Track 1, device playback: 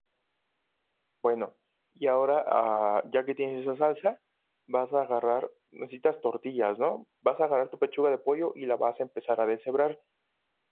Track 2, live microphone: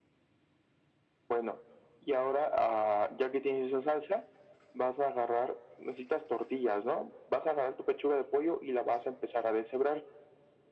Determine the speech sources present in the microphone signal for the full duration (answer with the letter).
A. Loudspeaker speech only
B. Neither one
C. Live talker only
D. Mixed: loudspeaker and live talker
A